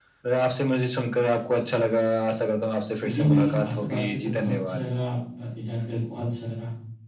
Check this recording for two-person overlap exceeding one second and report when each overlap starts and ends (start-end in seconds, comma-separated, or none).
3.0-4.8